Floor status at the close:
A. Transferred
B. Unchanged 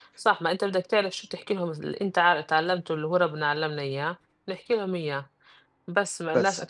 B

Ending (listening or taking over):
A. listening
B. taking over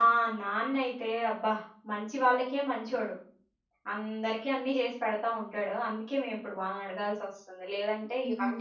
B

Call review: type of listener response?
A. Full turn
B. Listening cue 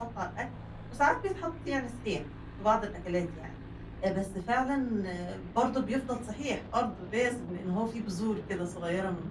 A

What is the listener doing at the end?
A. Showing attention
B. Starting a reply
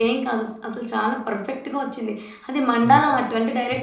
A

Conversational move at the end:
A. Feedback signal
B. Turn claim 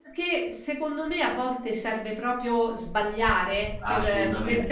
A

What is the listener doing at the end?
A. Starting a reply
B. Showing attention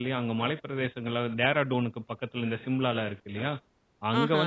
B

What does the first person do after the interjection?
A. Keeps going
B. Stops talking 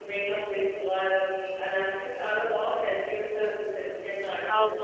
B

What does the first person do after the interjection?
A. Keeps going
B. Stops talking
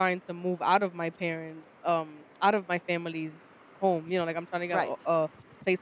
A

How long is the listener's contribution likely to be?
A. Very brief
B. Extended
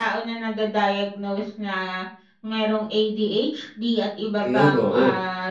A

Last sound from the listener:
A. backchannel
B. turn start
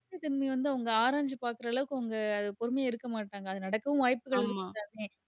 A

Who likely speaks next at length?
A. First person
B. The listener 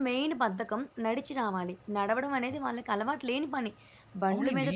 A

